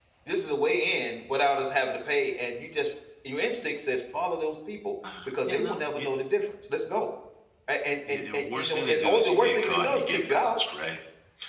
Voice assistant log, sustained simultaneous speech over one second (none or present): present